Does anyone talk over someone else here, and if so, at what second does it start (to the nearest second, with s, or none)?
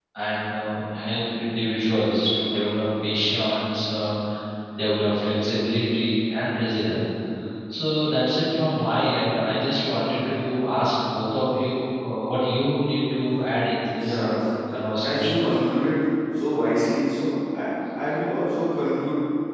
14 s